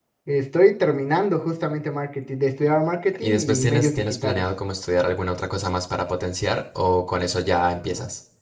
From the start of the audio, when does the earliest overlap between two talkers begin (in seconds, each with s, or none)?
3.2 s